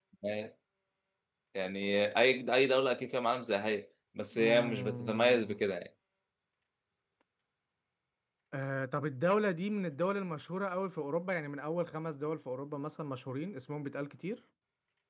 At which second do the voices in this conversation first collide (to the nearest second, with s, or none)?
4 s